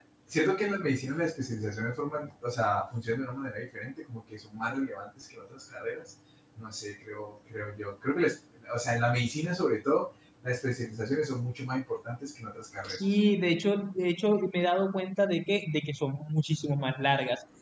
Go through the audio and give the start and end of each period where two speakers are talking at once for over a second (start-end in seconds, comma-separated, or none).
none